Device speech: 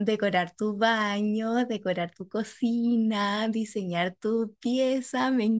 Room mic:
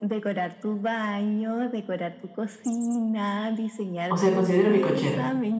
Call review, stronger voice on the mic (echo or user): user